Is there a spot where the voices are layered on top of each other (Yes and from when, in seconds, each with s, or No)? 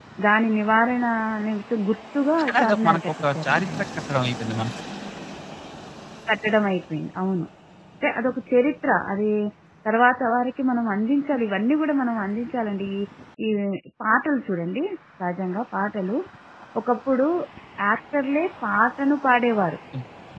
Yes, from 2.4 s